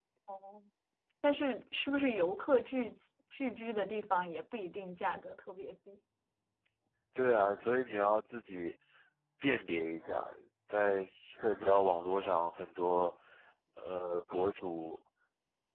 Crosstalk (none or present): none